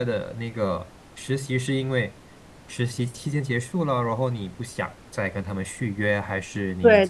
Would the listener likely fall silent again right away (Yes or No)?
No